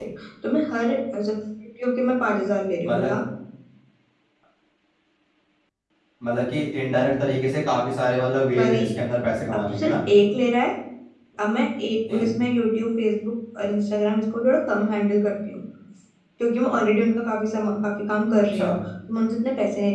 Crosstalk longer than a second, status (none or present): none